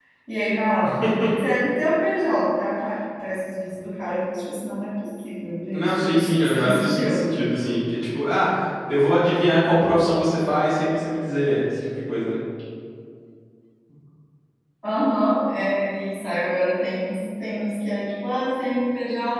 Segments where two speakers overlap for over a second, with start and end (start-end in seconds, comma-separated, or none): 5.7-7.2